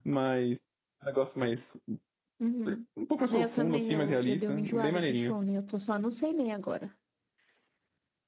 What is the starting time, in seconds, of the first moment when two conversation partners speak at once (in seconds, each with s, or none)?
3.3 s